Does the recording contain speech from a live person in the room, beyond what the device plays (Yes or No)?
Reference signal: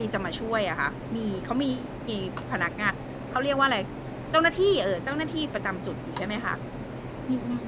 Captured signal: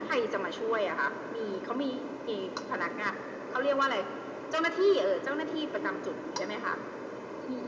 No